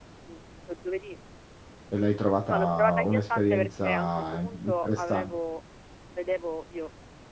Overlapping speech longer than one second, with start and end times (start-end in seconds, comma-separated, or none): 2.5-5.3